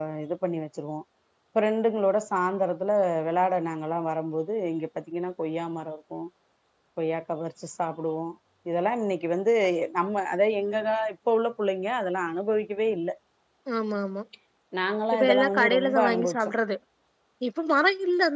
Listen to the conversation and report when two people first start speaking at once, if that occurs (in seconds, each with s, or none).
15.1 s